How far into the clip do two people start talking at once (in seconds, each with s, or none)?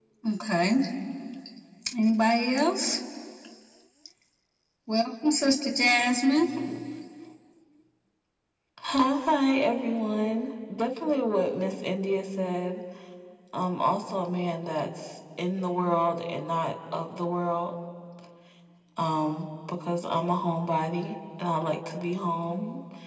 none